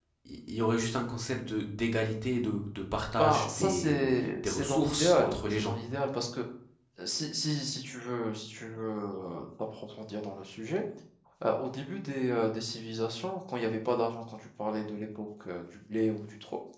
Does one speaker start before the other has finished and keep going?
Yes, from 3.2 s

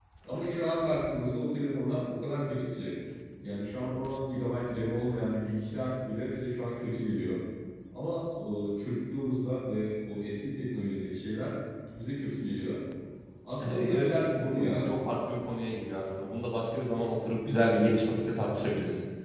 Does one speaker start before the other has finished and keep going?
Yes, from 13.7 s

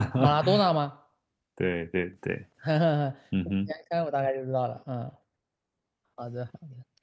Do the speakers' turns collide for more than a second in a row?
No

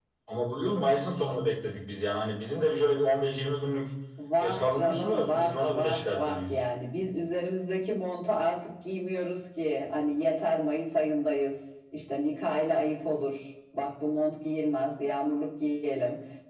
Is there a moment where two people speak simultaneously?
Yes, from 4.4 s

